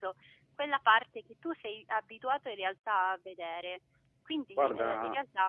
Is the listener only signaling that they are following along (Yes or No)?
Yes